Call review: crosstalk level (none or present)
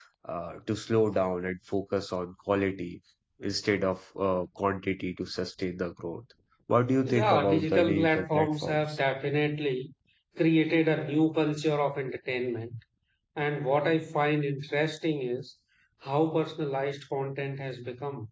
present